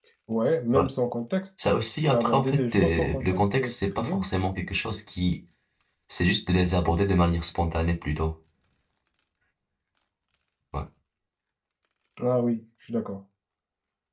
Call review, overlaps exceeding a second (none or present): present